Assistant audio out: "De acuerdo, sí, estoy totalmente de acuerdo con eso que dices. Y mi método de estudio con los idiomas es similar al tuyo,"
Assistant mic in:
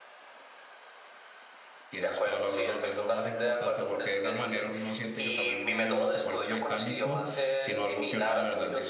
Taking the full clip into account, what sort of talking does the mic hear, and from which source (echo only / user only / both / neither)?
both